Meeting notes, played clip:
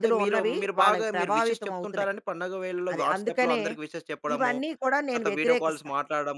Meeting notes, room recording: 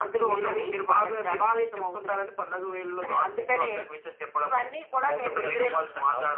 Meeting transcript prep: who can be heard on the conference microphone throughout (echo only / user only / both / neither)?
both